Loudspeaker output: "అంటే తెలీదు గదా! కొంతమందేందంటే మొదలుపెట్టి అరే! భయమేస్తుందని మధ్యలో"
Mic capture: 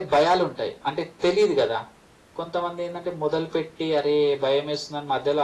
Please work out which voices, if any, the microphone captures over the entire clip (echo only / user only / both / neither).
echo only